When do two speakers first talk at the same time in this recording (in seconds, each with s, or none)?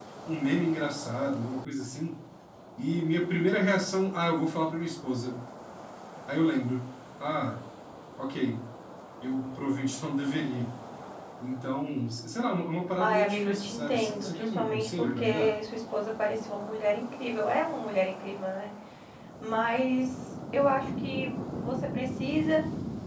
13.0 s